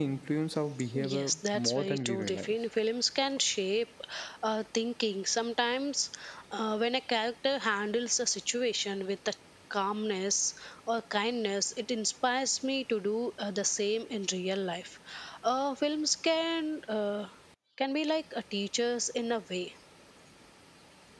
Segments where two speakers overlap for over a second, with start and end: 1.1-2.5

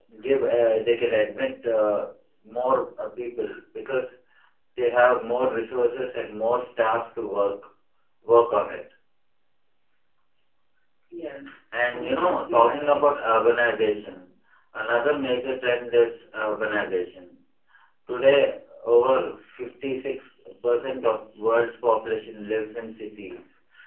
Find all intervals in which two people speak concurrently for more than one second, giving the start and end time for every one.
11.9-13.1

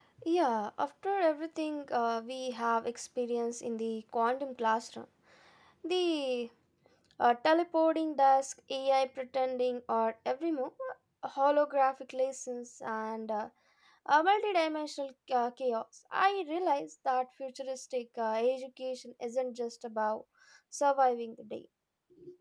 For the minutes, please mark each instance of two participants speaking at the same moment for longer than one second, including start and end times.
none

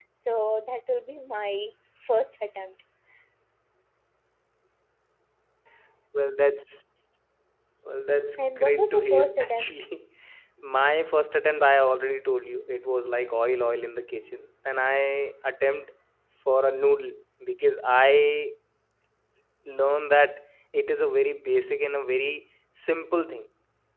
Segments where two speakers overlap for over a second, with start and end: 8.3-9.7

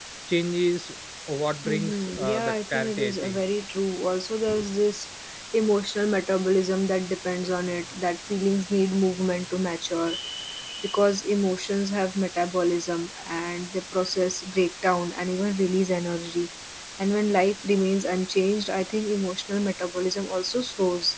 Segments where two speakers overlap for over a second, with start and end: 1.6-3.4

